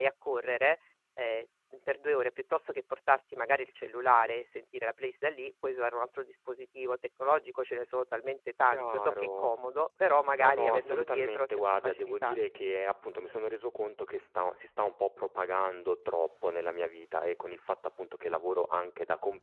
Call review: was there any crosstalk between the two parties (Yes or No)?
Yes